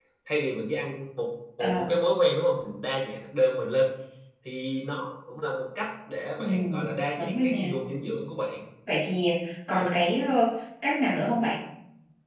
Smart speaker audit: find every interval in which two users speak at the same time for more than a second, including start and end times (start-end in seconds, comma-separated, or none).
6.4-7.7